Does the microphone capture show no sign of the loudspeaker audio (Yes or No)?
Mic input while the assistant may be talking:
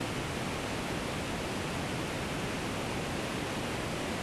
Yes